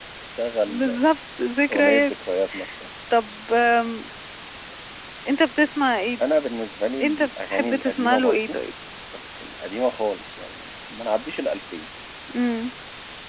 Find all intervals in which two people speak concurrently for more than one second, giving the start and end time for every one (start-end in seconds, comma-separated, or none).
7.0-8.6